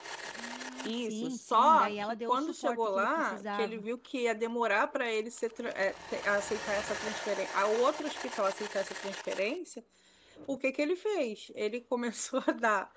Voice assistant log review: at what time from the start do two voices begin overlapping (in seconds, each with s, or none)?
0.8 s